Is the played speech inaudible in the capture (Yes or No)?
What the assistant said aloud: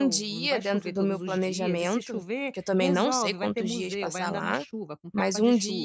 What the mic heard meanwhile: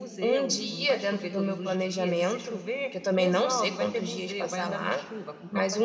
No